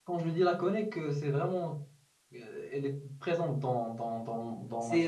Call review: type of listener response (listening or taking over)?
taking over